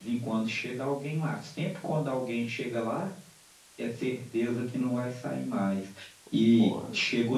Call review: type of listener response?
listening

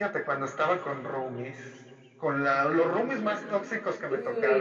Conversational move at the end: listening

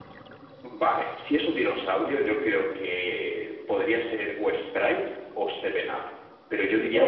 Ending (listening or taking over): taking over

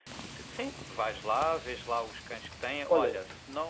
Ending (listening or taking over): listening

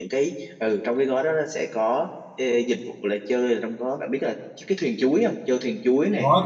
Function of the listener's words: taking over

